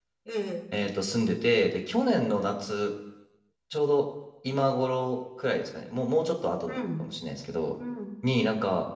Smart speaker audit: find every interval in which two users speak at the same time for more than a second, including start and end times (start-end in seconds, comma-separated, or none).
none